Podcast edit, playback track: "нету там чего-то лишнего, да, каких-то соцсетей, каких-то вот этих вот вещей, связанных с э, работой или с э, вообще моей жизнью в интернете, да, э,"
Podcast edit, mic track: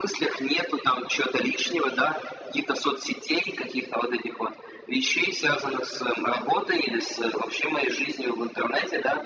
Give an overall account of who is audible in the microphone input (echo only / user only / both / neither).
echo only